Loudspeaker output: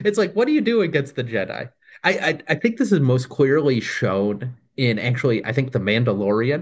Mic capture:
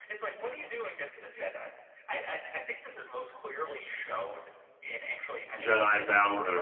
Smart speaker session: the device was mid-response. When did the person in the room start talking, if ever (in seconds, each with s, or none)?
5.5 s